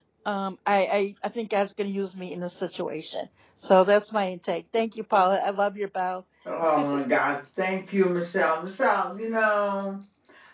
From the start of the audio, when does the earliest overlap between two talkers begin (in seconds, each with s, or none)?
none